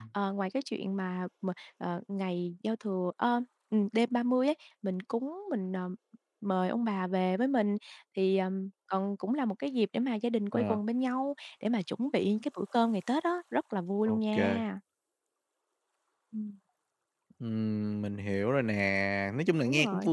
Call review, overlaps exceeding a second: none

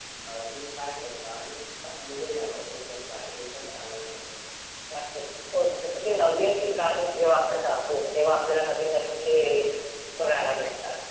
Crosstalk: none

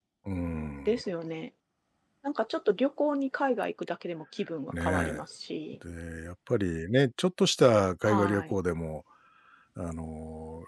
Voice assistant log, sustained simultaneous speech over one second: none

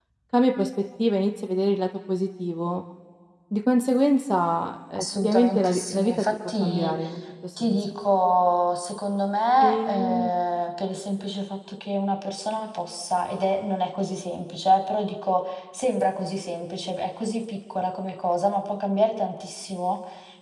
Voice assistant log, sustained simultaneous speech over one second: present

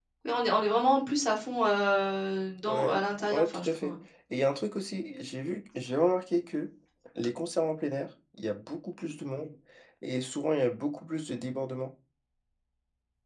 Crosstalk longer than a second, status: present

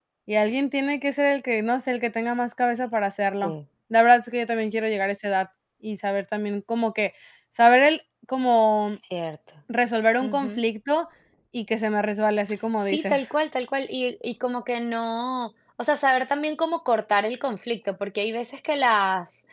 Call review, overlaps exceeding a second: none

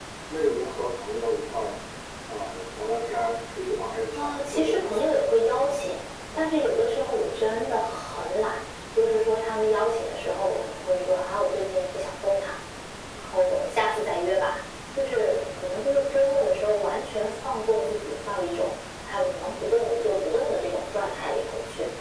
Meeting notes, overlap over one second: present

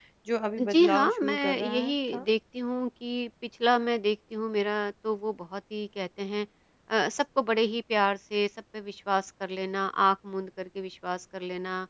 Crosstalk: present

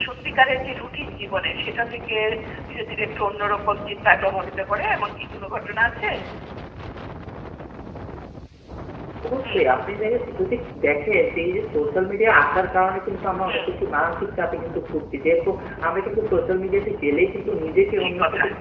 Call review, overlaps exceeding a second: none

